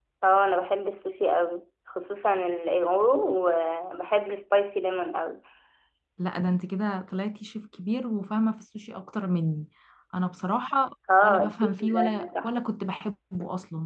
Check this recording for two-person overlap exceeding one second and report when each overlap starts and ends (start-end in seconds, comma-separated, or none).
11.2-12.5